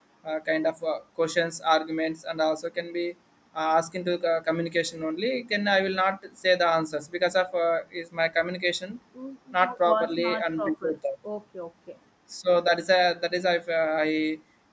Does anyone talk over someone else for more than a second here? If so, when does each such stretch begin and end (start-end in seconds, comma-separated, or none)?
9.6-10.9